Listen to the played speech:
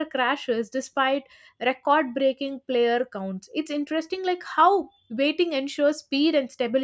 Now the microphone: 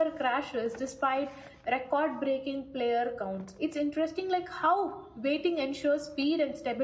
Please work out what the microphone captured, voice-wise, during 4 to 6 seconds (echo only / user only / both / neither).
echo only